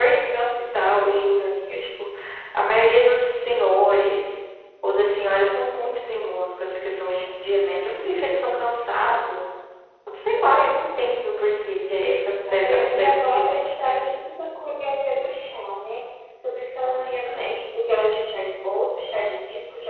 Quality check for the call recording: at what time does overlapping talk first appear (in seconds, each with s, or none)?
12.5 s